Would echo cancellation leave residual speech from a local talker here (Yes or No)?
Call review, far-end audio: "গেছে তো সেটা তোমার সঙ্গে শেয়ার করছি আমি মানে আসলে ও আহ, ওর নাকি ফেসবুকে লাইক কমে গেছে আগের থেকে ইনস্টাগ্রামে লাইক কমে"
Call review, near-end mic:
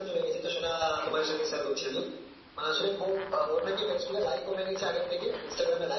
No